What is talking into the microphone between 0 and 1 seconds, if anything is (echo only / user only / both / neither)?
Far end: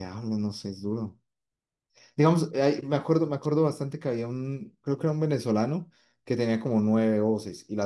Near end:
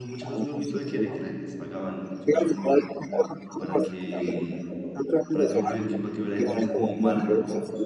both